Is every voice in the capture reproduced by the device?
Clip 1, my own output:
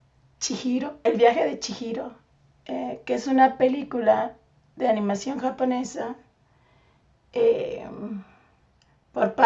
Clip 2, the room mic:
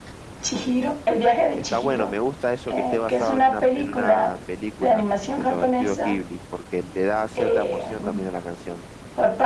No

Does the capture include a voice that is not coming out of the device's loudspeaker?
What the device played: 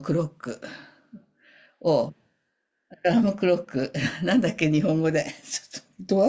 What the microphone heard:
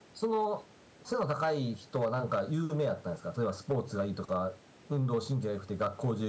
Yes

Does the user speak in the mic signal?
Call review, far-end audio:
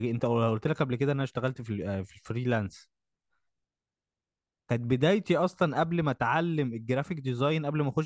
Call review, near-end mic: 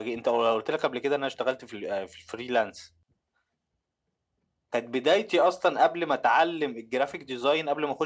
No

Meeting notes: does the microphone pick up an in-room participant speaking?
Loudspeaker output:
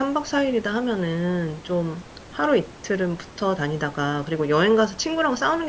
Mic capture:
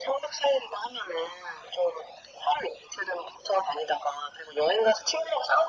No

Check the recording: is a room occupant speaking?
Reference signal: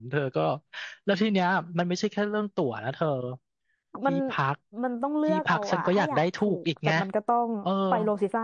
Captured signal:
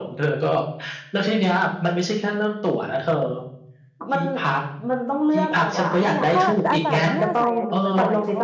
Yes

